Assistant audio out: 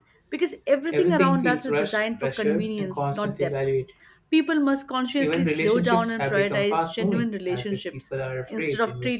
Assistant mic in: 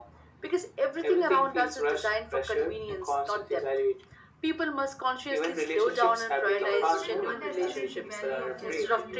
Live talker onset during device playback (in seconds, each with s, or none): 6.6 s